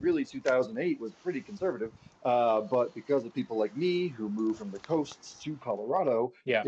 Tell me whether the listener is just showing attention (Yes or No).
Yes